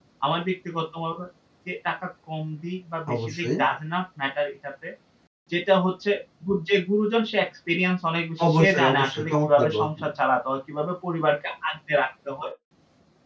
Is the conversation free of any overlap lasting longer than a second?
No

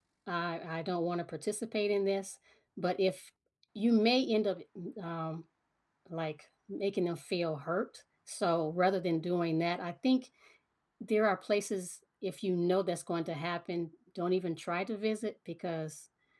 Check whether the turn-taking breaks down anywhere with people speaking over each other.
No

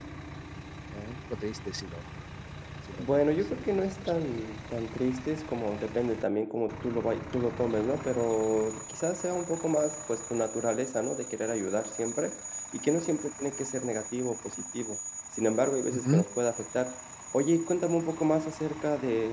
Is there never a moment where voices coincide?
No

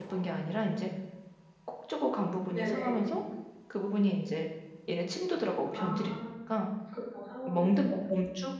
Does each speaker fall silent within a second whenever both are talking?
Yes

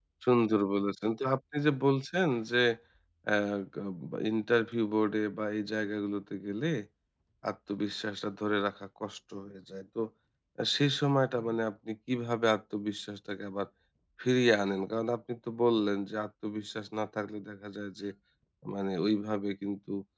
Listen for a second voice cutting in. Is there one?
No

